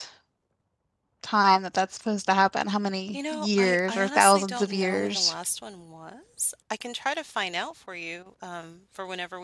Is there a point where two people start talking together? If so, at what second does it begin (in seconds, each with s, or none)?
3.1 s